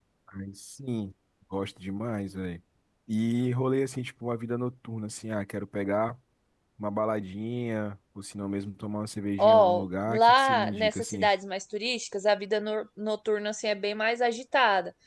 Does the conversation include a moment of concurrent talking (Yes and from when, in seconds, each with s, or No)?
Yes, from 9.4 s